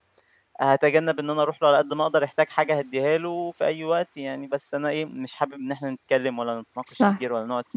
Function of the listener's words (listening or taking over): listening